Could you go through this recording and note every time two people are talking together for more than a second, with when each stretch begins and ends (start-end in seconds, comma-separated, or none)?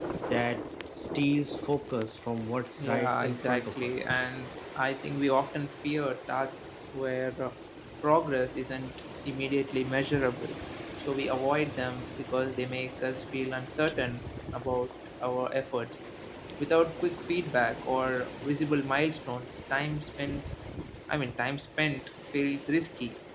2.8-4.1